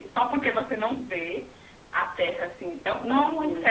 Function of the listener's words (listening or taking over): listening